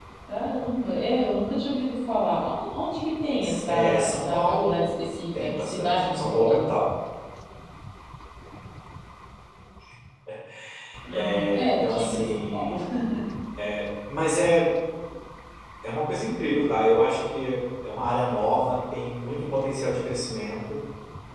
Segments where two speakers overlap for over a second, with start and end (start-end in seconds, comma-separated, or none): 3.7-4.9, 5.4-6.6, 11.1-12.8